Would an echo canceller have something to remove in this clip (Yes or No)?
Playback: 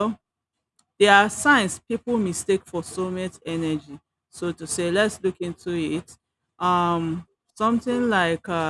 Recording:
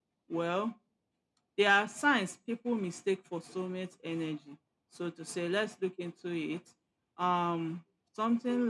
Yes